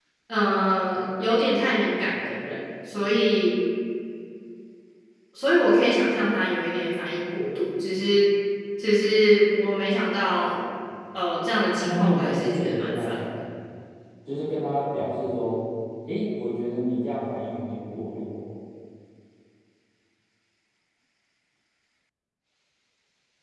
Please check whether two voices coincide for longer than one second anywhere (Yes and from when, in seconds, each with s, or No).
Yes, from 11.8 s